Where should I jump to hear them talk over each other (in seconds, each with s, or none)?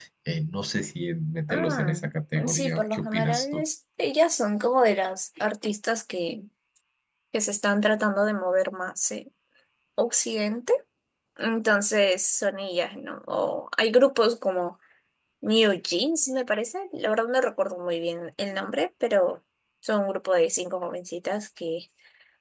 1.5 s